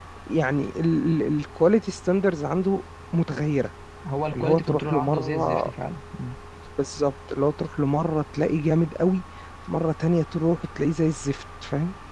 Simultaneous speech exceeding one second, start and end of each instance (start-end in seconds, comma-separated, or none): 4.3-5.7